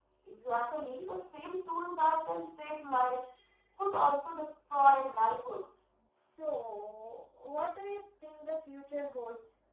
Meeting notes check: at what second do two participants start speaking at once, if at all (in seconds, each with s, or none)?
none